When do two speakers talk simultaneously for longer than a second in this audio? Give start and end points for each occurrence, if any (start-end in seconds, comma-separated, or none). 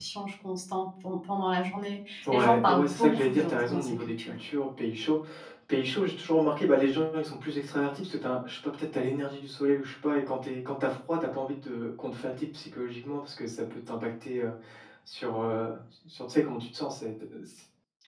2.3-4.3